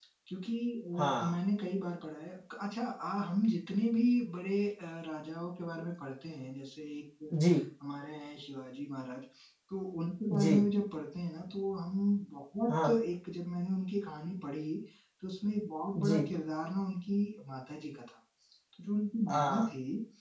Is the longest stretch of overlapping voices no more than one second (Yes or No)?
Yes